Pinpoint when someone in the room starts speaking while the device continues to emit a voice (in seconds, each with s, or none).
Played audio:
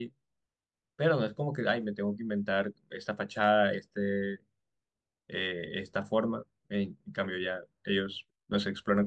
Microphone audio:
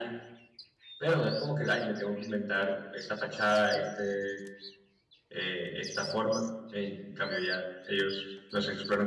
none